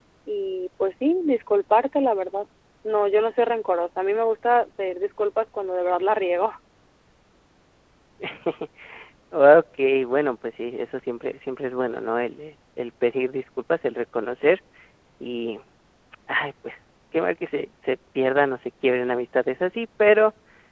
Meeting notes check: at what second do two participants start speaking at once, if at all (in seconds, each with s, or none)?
none